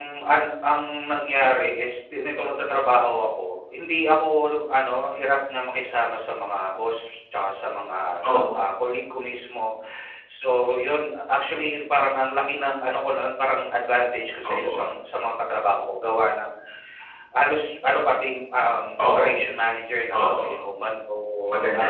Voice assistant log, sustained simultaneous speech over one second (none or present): none